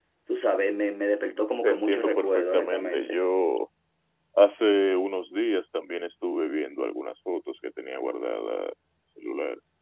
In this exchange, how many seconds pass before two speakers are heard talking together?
1.6 s

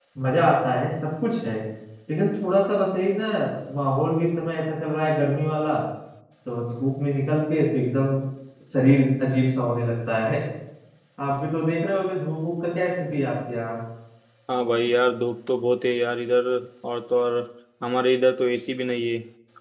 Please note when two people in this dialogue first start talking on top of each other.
none

